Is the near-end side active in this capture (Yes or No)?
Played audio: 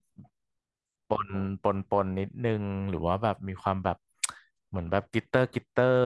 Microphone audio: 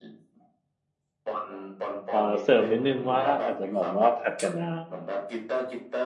Yes